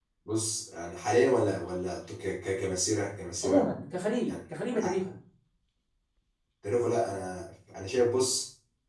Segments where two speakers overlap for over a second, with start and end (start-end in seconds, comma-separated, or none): none